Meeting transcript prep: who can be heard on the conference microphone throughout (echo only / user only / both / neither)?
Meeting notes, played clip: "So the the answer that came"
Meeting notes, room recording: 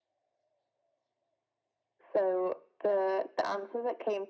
echo only